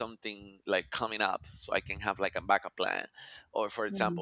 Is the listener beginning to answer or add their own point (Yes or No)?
No